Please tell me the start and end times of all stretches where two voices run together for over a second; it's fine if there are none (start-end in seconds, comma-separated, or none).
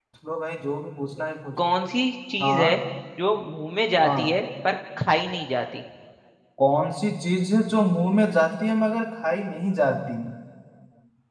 none